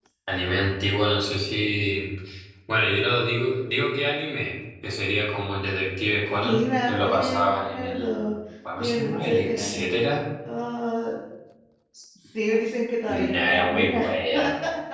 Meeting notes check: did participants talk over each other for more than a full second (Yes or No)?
Yes